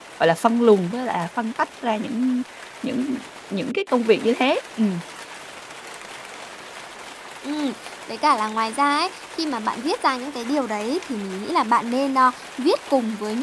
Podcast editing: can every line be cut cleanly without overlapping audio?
Yes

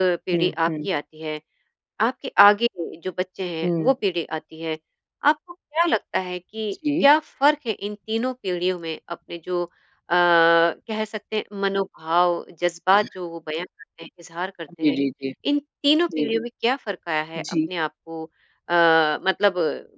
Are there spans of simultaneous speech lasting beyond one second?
No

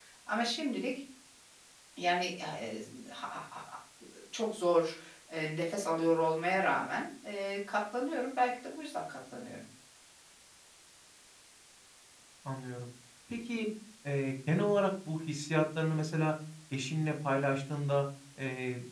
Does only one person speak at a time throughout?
Yes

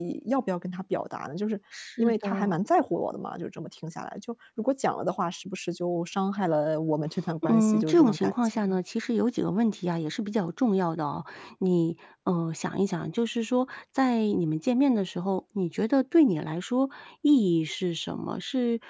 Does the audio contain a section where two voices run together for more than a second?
Yes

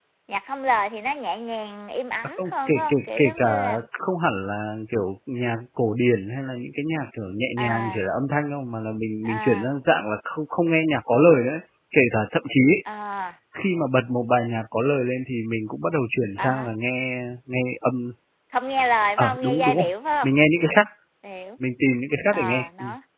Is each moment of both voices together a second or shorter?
No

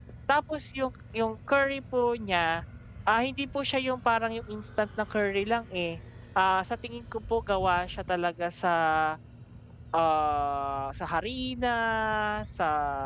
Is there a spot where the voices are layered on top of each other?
No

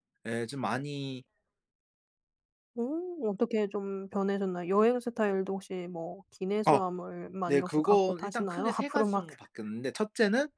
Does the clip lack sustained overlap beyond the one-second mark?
No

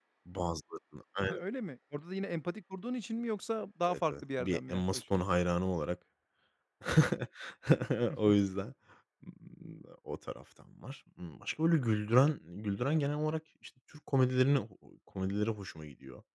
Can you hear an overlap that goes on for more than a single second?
Yes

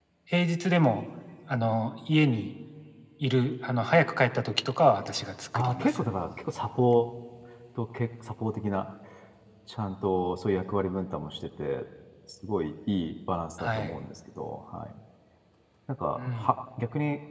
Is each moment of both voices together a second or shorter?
Yes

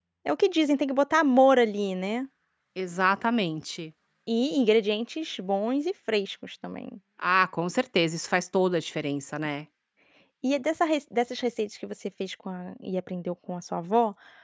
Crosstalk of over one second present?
No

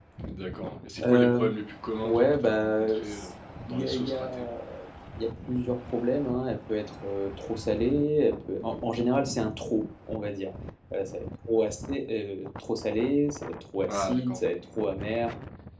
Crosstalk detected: Yes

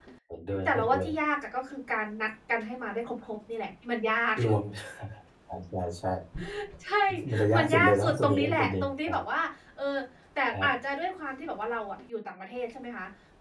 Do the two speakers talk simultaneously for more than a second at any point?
Yes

